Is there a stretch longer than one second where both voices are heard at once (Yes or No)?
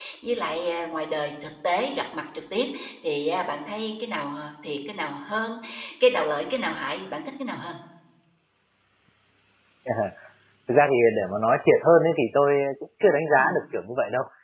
No